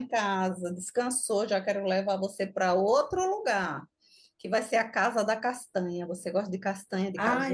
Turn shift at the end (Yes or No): Yes